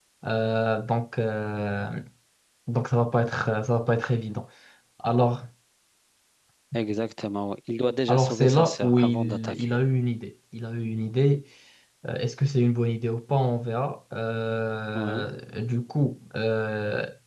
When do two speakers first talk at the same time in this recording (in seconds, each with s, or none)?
8.1 s